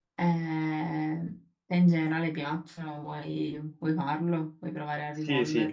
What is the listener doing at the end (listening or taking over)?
taking over